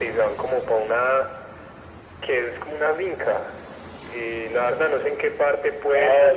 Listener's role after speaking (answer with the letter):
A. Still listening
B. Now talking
B